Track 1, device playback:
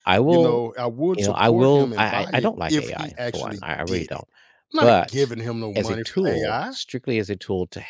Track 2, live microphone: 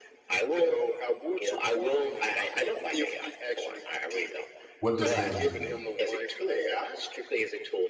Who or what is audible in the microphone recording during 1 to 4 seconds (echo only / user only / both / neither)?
echo only